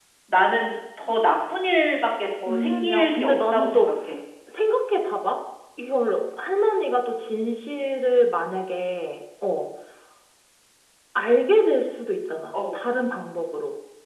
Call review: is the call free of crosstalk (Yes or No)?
No